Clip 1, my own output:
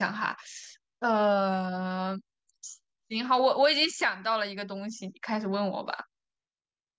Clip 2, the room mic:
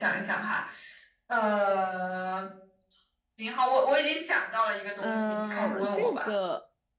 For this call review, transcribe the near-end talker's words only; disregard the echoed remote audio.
嗯，这个

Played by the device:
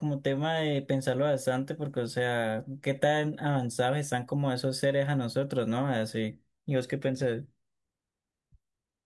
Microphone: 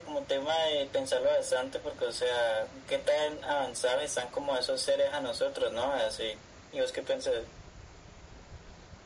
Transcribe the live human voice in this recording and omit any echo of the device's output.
none

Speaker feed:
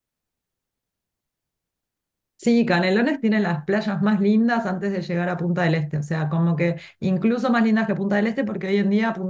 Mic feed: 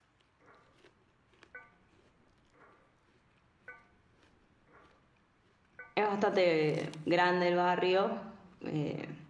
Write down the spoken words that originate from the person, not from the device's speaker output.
es bastante grande el barrio. Eh,

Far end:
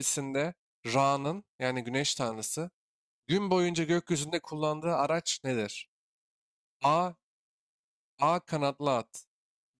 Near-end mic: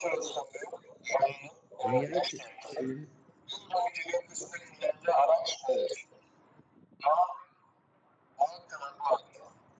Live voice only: Dünyayı çe- çeviren,

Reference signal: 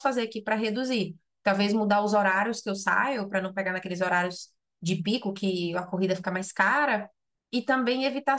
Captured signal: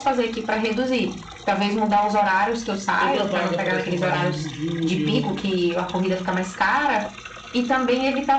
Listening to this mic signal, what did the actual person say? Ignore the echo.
toda vaga parece uma vaga muito júnior,

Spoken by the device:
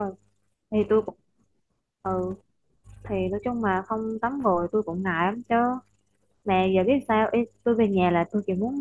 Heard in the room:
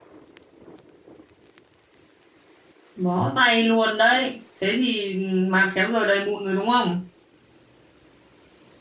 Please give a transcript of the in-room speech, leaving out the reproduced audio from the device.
bó tay luôn đấy thế thì mặt khéo giờ đầy mụn rồi đúng không

